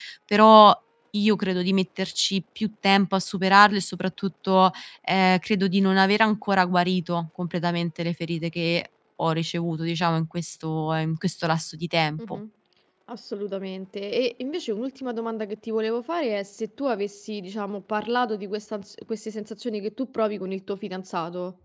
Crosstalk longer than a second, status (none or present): none